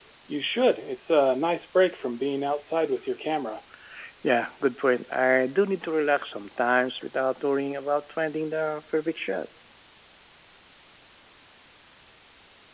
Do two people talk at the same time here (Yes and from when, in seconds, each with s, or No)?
No